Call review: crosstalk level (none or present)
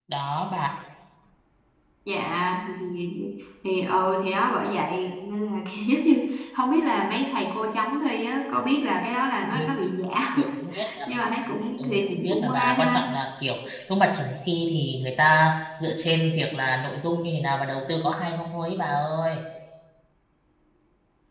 present